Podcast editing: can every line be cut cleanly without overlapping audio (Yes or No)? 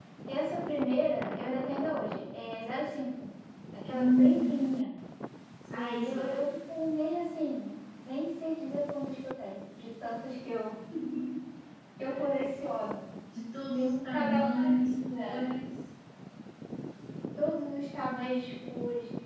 No